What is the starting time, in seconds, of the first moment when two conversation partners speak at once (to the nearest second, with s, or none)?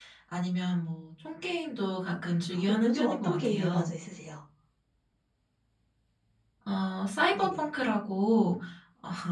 3 s